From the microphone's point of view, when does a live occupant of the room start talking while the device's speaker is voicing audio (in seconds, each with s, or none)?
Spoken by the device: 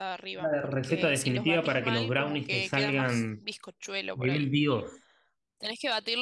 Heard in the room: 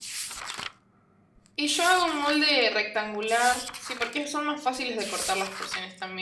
1.6 s